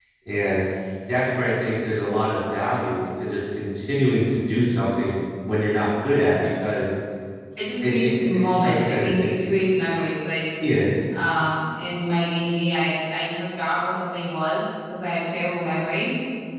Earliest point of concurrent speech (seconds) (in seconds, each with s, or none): 7.8 s